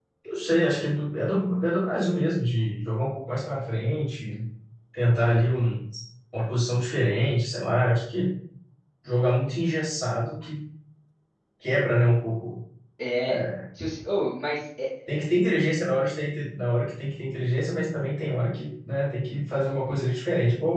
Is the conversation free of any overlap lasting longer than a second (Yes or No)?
Yes